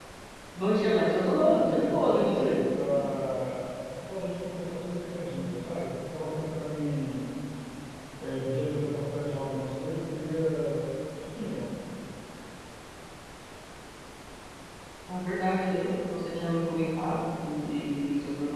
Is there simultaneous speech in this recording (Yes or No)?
Yes